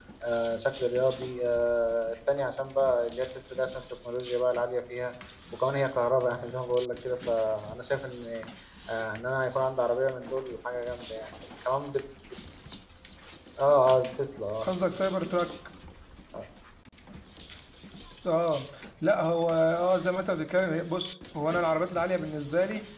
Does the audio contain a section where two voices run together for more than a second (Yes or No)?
No